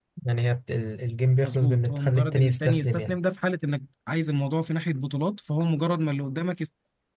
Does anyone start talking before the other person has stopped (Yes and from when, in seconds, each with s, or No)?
Yes, from 1.4 s